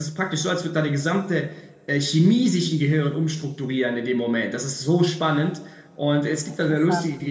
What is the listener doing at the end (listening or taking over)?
listening